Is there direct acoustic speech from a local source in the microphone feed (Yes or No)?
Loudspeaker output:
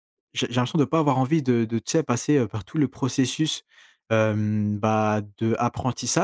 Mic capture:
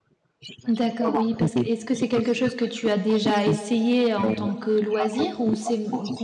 Yes